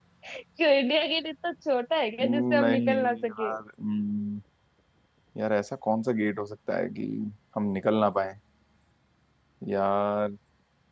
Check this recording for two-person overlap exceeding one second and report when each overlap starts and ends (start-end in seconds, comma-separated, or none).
2.2-3.5